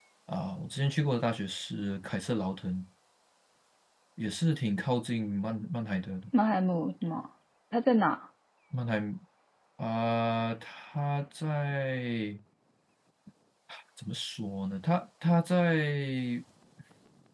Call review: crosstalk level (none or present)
none